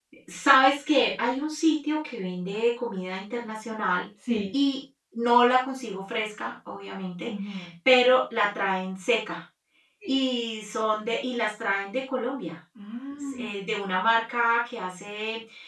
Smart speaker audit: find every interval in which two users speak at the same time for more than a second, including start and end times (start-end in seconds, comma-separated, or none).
none